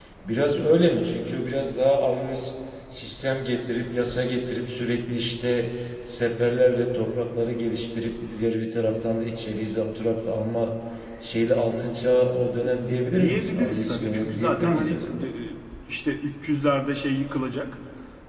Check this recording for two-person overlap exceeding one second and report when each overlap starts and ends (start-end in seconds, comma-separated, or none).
13.2-15.2